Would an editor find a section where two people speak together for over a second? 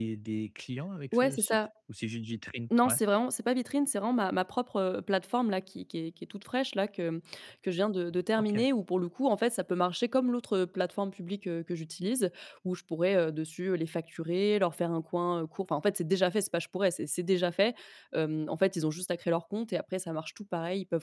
No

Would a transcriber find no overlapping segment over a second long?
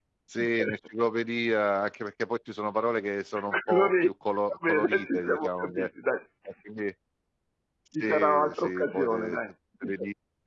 No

